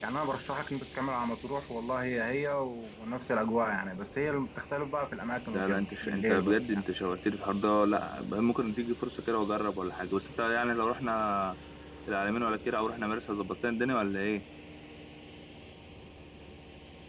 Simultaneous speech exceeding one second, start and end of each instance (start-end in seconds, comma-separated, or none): 5.5-6.8